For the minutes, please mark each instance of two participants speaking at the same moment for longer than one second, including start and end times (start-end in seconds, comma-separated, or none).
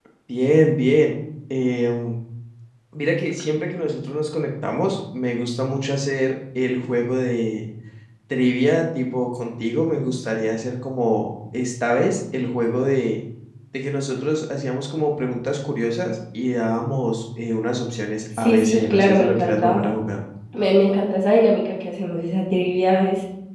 18.4-19.9